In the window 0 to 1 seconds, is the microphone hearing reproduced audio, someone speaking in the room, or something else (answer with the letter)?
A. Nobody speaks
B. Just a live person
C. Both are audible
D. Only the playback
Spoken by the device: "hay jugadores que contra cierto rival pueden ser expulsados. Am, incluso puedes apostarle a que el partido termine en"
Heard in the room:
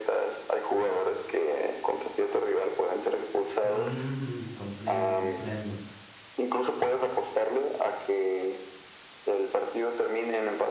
D